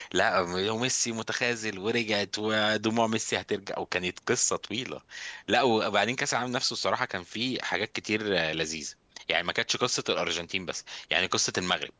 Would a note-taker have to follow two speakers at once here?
No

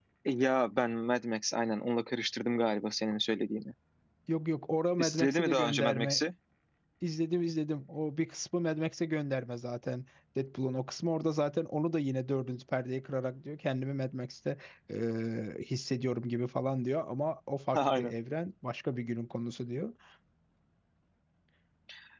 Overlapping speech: Yes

